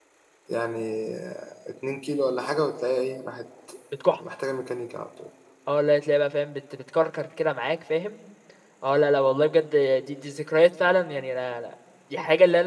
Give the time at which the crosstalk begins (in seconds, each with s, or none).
none